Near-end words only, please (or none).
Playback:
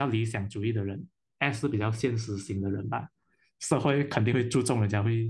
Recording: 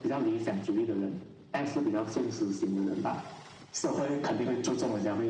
none